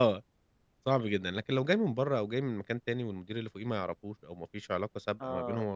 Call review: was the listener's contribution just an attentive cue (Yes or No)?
Yes